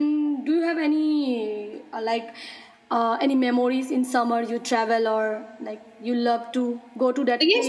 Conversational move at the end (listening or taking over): taking over